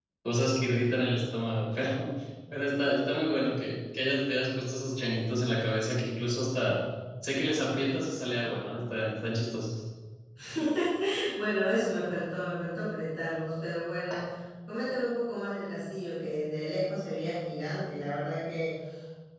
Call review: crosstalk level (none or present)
none